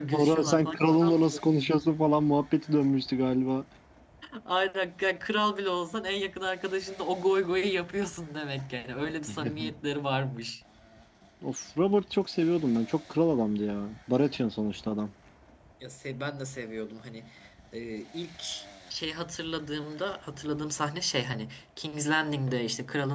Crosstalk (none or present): present